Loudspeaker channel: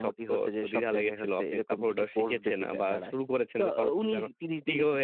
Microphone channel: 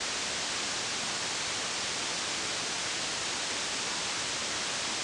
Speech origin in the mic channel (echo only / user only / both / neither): neither